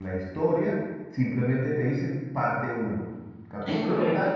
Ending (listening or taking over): listening